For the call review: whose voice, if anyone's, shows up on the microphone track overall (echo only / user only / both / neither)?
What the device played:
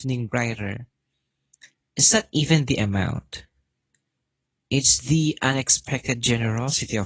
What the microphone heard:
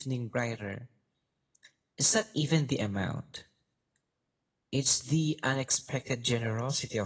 echo only